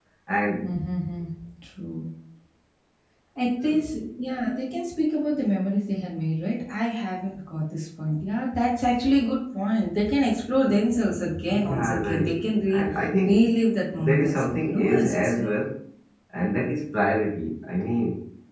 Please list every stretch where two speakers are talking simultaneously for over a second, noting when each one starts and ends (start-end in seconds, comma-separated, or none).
11.5-12.9, 13.9-15.4